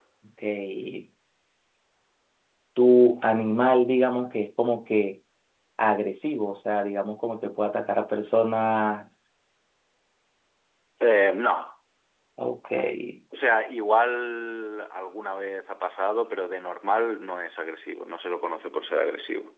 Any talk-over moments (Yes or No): No